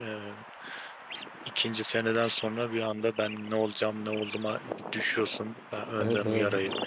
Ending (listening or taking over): taking over